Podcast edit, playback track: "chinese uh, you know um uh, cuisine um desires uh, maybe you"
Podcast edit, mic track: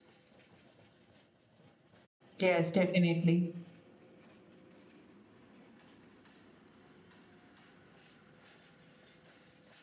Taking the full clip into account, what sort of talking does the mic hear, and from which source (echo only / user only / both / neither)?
user only